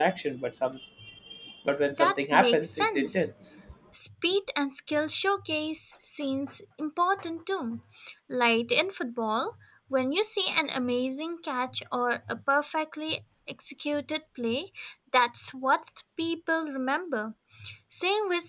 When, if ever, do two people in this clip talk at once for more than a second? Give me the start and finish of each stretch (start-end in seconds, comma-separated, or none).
1.9-3.3